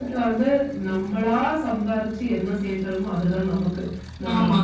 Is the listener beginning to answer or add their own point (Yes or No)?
No